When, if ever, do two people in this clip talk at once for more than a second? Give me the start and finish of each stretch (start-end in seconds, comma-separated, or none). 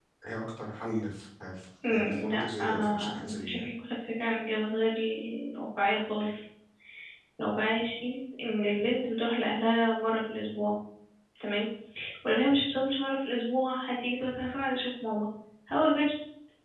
1.9-3.7